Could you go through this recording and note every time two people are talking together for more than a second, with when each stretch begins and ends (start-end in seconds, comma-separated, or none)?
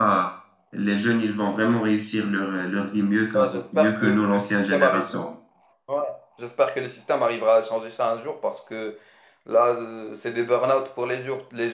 3.3-5.1